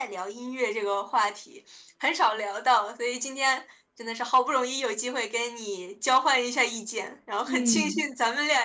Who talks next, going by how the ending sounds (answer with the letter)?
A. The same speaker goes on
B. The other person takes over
A